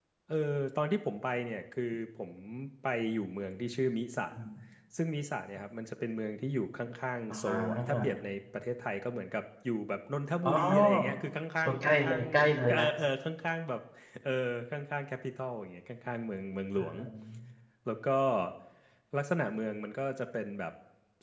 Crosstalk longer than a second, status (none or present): present